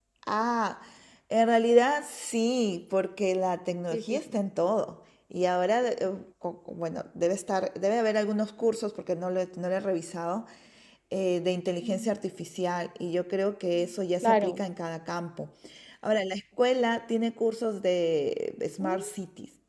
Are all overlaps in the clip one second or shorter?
Yes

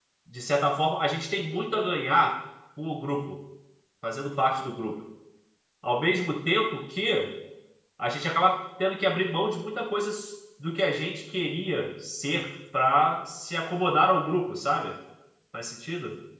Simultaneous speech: No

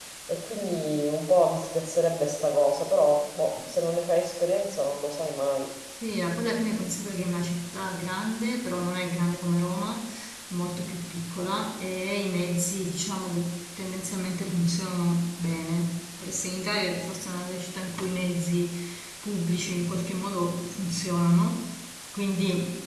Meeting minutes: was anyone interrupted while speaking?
No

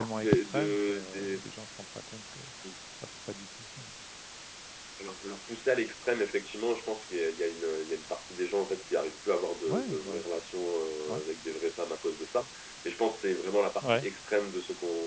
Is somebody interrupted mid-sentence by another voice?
Yes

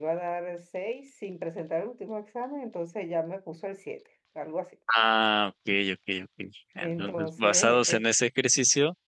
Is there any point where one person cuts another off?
Yes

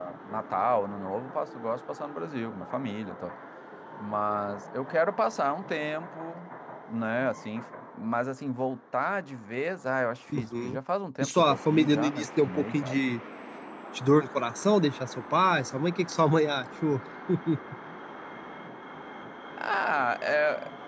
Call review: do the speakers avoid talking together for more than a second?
No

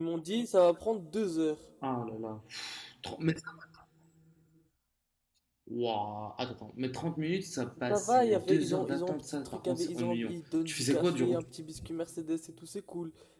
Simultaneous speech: Yes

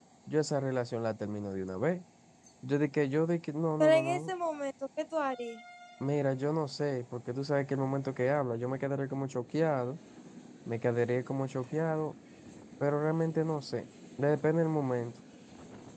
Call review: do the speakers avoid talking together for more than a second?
Yes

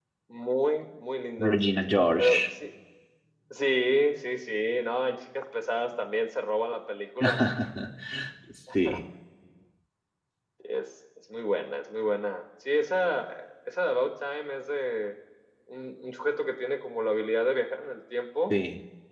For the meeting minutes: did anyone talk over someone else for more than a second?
No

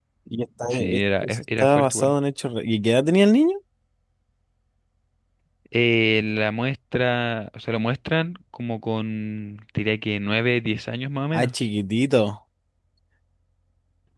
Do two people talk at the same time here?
Yes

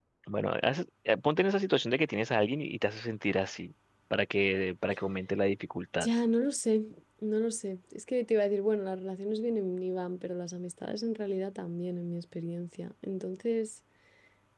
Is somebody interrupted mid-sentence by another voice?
No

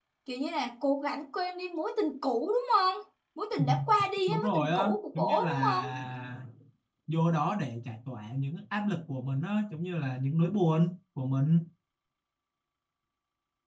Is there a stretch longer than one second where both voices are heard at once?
Yes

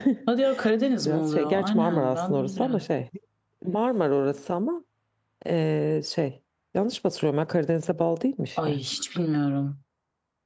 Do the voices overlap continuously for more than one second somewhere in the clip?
Yes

